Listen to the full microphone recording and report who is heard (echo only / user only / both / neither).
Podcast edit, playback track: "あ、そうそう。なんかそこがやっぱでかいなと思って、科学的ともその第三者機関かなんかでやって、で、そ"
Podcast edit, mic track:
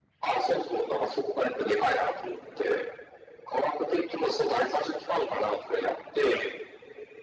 echo only